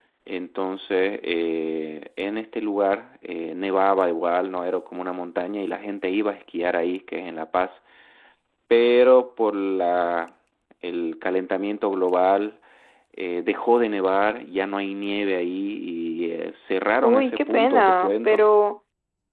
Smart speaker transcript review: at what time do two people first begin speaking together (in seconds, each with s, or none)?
16.9 s